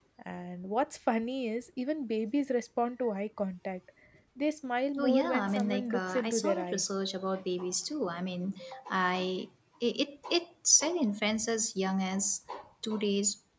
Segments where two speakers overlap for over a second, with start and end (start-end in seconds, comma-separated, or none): 5.0-6.8